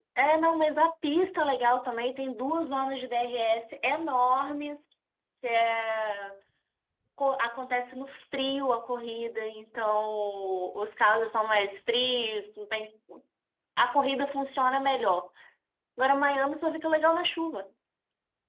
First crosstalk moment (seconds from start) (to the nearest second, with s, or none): none